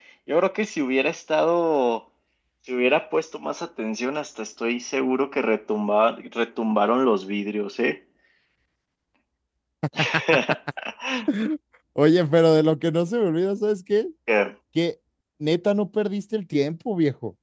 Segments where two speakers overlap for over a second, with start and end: none

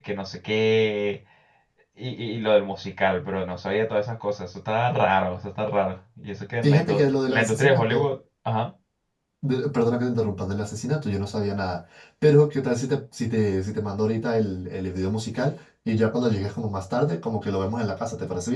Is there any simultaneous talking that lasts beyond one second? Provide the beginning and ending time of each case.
6.6-8.0

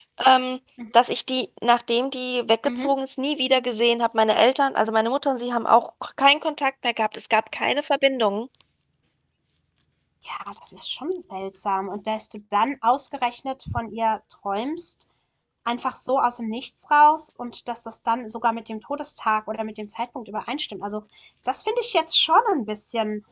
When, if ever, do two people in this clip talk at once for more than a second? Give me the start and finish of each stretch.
none

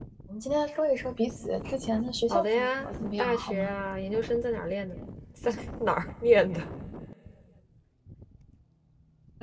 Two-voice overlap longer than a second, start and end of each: 2.3-3.7

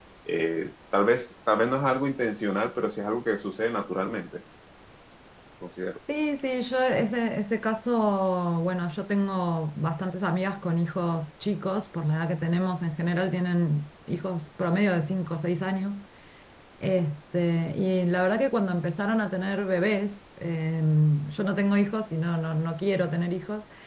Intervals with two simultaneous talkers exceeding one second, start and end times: none

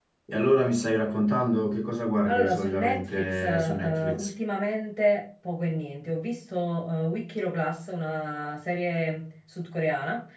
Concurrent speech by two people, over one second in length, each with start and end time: 2.2-4.3

